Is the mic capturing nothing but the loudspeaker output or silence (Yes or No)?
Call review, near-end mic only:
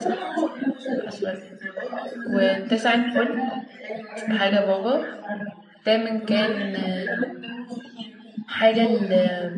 No